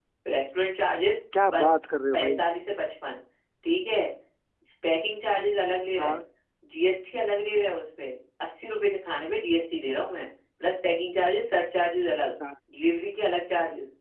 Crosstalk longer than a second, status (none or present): none